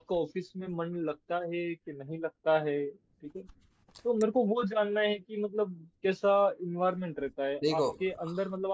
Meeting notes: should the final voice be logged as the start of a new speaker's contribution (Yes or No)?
No